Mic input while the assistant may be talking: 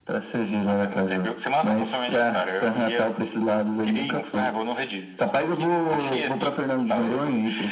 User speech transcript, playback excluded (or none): none